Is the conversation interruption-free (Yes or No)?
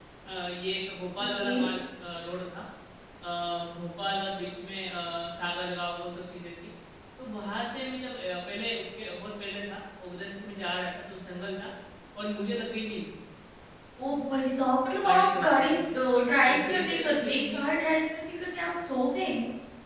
No